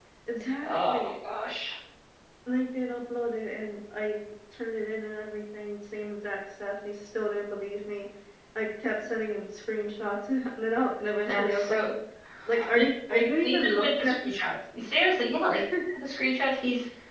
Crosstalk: present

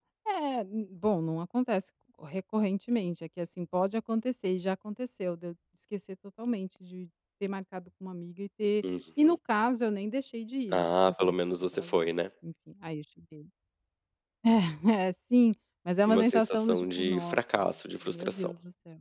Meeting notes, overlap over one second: present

